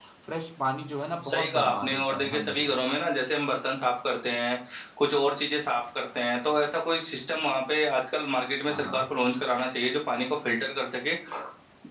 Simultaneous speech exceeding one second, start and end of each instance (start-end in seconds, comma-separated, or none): 1.3-2.7